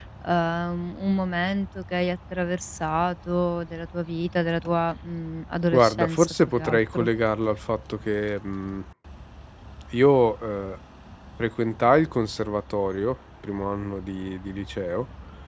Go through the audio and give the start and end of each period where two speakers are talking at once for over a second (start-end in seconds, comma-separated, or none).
5.8-7.1